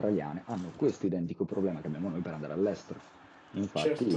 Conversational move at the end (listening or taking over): listening